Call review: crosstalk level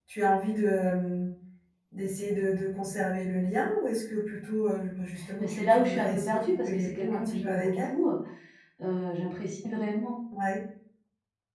present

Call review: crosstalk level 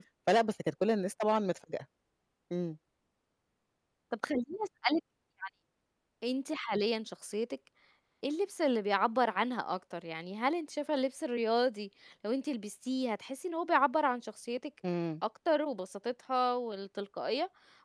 none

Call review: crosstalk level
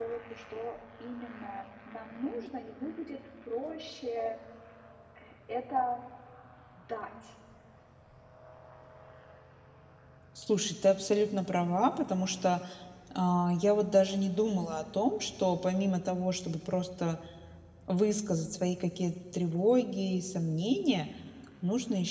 none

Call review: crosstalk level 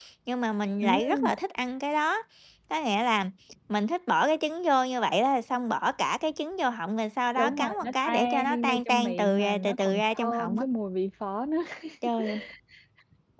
present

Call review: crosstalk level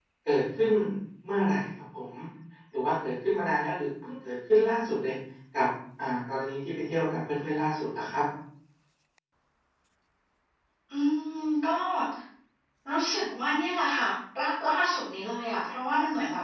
none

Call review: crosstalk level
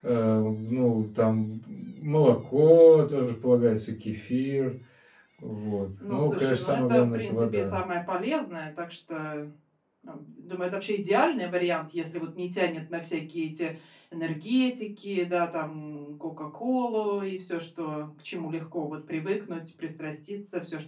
present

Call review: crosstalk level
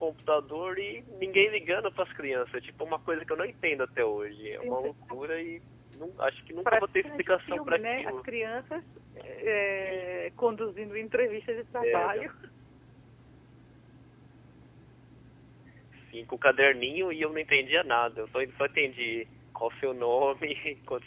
present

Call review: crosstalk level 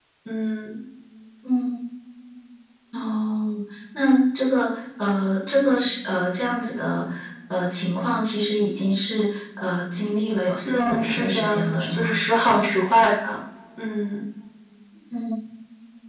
present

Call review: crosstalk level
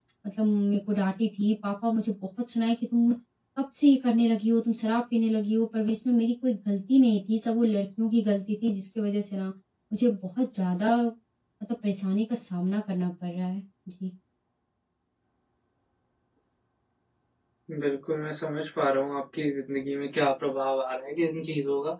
none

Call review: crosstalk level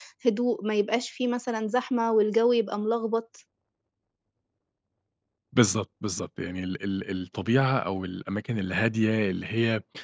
none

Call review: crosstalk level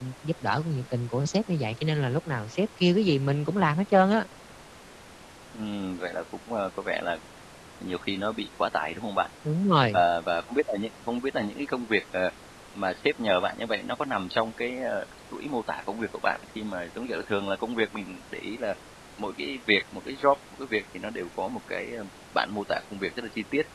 none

